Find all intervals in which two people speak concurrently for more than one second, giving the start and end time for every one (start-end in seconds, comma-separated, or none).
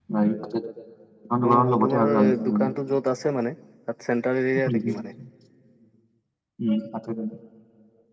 1.5-2.7